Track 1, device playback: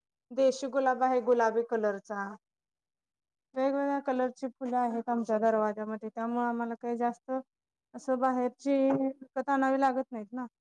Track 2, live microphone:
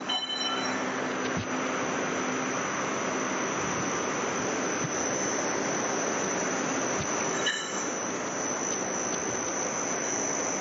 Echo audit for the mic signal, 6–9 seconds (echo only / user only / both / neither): neither